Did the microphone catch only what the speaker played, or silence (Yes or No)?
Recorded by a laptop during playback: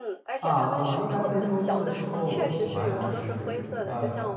No